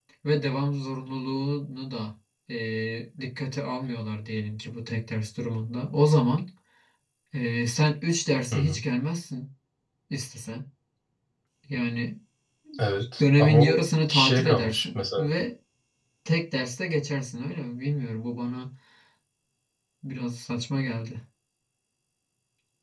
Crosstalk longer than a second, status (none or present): present